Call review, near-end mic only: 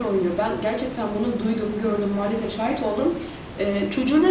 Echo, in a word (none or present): present